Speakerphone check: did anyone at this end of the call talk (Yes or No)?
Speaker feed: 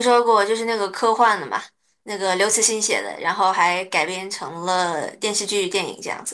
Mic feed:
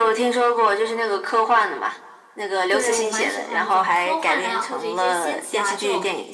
Yes